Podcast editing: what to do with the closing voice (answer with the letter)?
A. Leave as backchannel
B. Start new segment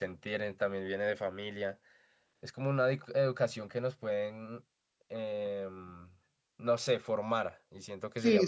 B